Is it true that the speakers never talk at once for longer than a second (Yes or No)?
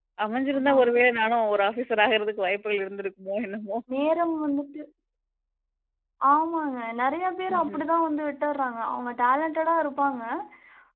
Yes